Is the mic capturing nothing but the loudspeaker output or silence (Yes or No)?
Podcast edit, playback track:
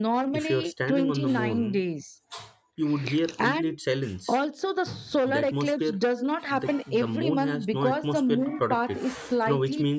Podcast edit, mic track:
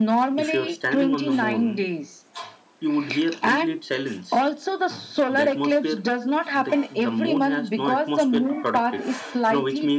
Yes